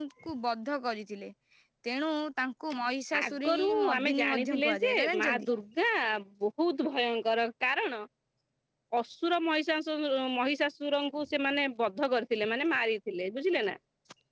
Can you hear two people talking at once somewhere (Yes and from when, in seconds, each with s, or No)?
Yes, from 3.1 s